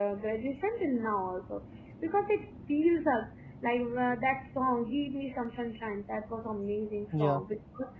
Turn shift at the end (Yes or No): No